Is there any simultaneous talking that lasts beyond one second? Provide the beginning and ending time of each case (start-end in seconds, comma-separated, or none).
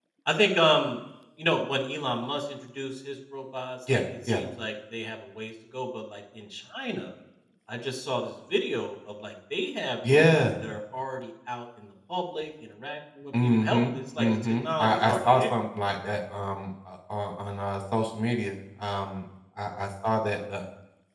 13.4-15.5